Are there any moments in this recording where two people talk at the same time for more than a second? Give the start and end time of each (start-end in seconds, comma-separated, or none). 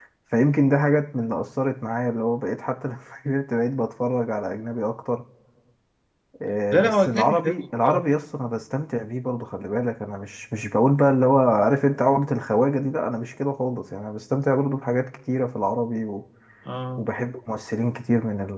6.7-8.0